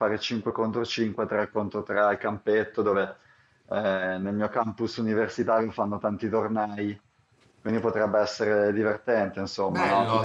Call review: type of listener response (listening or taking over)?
taking over